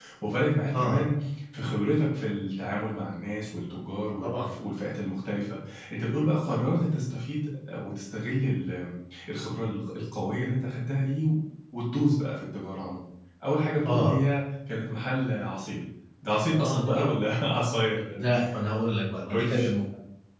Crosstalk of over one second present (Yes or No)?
No